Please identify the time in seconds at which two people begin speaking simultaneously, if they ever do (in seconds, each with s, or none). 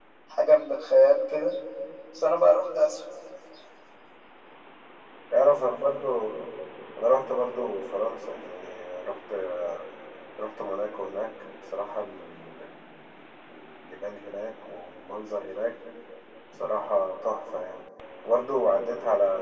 none